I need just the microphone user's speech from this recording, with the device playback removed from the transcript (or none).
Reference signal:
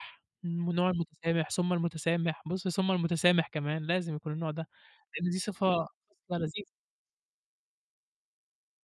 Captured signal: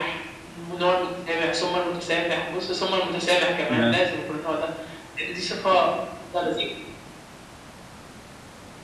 تمام.